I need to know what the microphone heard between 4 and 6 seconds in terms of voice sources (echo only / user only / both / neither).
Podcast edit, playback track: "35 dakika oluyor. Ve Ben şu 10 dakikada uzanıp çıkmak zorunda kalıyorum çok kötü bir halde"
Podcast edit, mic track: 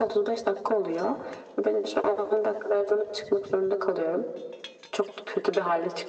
echo only